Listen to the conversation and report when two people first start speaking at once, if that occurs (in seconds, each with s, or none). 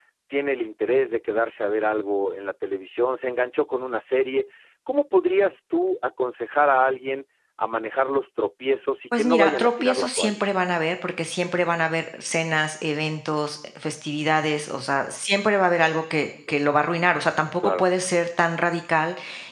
9.2 s